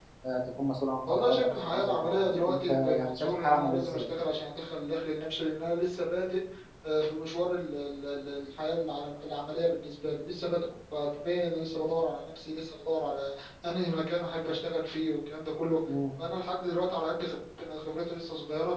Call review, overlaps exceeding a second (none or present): present